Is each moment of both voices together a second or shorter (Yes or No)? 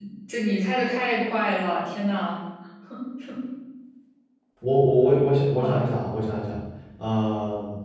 Yes